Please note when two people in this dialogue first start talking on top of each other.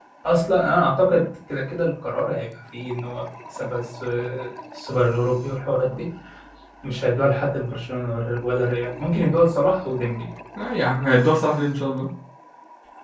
none

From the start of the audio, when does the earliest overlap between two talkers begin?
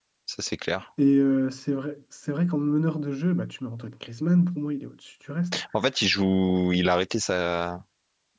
none

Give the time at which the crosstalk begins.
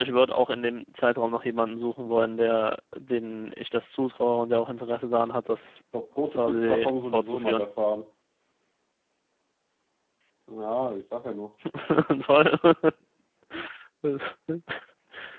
6 s

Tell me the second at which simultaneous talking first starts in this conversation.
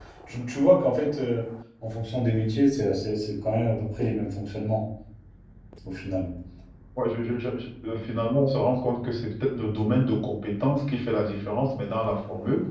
none

